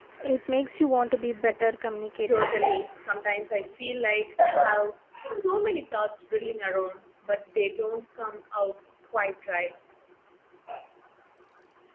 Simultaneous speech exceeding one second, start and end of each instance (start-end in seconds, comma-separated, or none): none